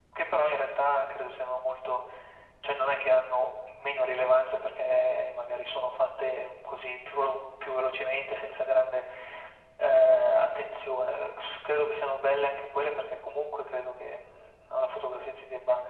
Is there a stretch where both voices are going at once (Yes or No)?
No